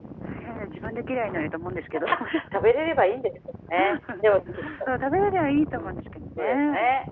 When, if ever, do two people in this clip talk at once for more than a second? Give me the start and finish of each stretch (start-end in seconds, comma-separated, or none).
none